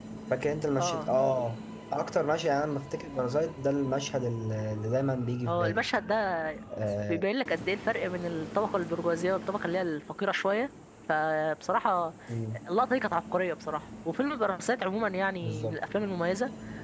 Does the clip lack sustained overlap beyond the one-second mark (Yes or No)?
Yes